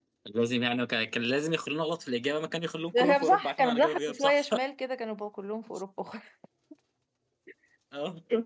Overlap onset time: 2.9 s

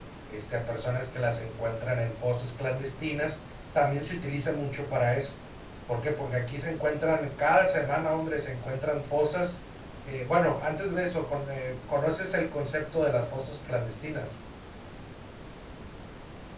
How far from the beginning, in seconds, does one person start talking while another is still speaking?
none

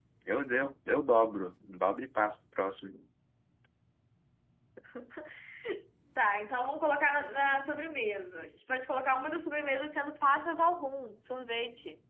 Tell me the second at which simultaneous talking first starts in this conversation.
none

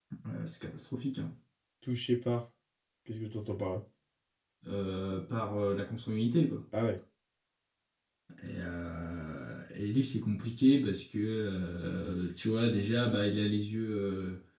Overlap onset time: none

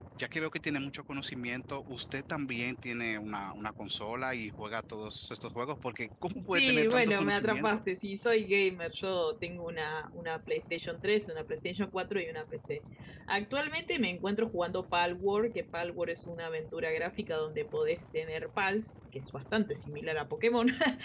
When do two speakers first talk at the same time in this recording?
6.5 s

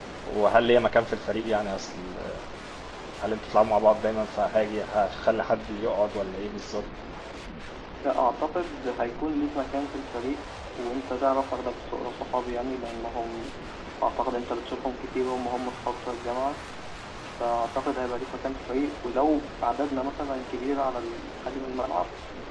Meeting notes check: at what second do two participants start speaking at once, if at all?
none

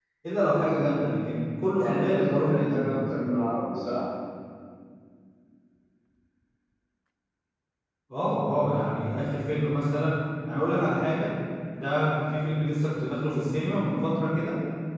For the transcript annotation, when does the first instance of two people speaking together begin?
1.8 s

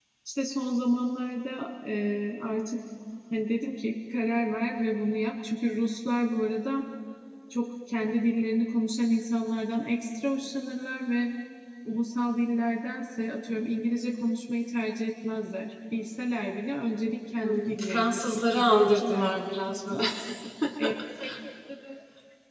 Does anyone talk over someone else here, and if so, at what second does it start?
17.4 s

